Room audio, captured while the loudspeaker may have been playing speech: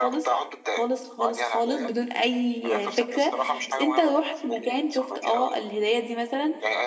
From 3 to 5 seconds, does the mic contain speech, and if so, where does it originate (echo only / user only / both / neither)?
both